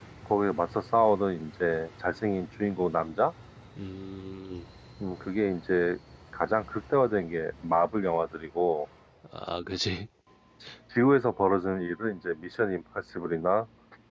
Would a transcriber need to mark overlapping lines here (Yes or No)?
No